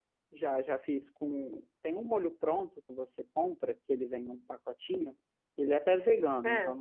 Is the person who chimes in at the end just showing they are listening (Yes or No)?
Yes